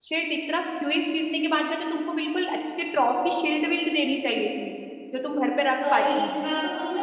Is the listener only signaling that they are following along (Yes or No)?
No